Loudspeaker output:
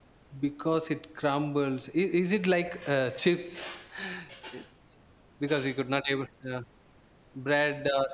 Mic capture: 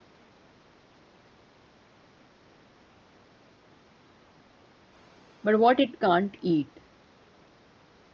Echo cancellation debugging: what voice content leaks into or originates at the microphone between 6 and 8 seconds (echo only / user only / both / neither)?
user only